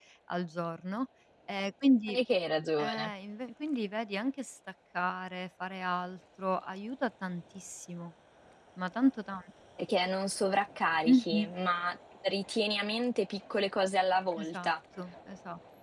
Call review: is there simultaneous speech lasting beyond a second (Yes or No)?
No